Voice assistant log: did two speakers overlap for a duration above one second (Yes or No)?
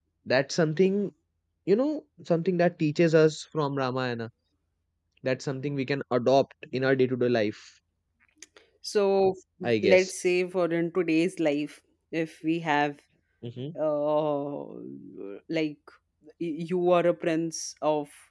No